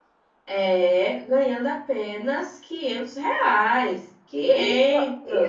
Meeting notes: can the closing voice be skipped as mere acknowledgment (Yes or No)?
No